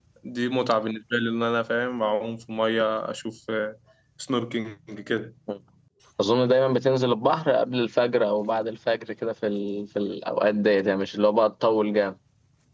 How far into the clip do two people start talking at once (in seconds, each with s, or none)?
none